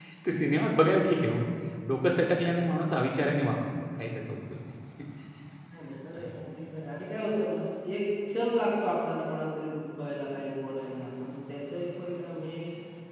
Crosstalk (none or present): none